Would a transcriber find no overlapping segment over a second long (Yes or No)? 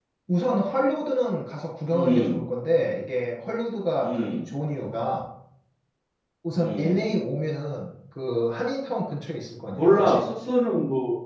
Yes